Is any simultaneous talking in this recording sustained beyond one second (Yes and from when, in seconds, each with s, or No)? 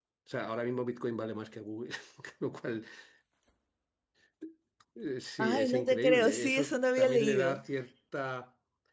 Yes, from 5.4 s